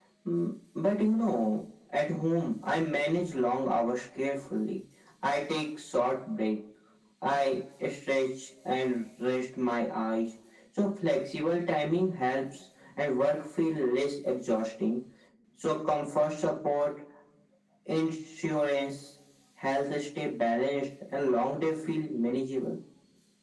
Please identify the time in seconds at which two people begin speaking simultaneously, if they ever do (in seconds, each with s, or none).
none